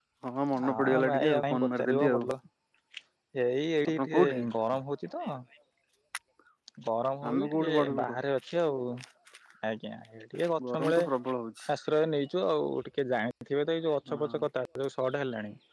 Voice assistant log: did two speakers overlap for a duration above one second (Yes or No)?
Yes